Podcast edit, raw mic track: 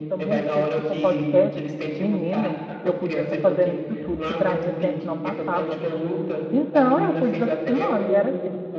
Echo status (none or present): present